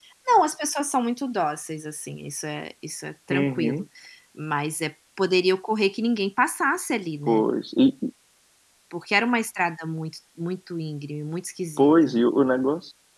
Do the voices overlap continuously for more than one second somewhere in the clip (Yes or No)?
No